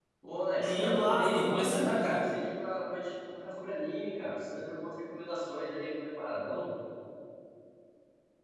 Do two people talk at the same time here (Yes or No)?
Yes